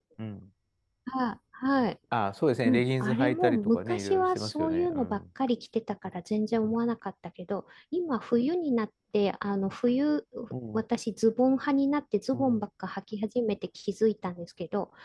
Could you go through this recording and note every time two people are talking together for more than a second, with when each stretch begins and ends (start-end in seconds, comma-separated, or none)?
2.6-5.2